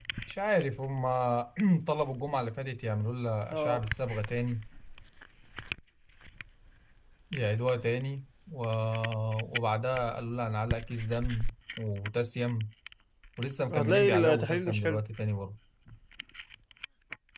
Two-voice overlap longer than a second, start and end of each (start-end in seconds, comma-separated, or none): 13.7-15.0